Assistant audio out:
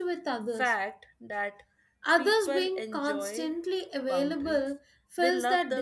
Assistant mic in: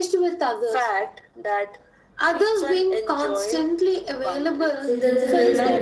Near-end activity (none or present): present